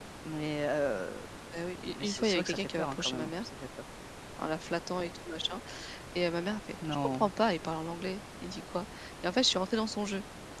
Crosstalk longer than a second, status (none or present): present